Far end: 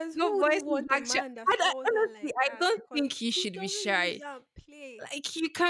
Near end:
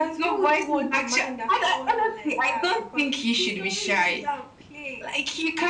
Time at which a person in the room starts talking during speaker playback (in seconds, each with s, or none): none